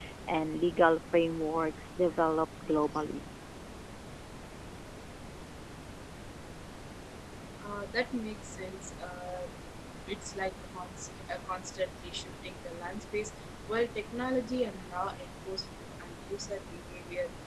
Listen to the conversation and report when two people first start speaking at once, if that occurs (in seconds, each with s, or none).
none